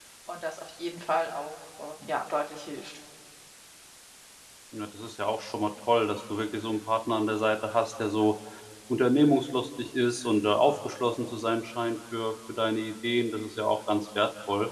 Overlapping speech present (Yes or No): No